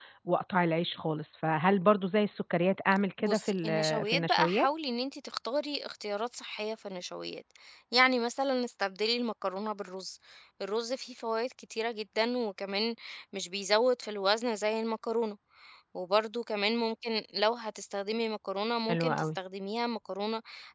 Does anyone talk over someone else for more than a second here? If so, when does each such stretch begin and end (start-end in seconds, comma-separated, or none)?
3.2-4.7